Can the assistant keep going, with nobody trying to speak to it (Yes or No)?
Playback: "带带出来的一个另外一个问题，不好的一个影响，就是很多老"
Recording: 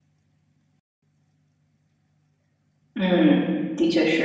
No